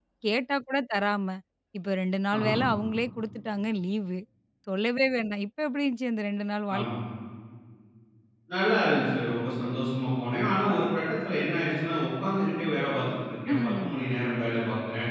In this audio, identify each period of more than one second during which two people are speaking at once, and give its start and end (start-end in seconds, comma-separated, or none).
none